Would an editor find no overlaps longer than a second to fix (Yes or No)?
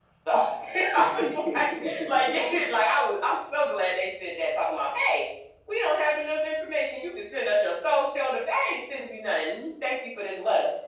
No